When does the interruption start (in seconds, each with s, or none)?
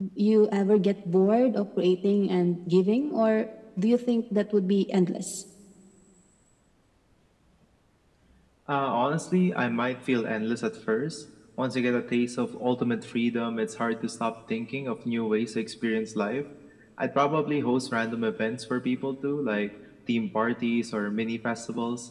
none